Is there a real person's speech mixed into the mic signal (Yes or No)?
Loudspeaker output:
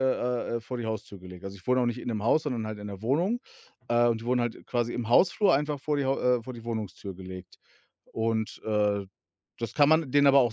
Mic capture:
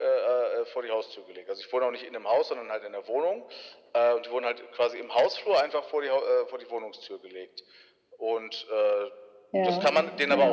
Yes